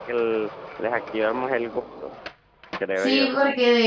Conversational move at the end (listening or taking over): taking over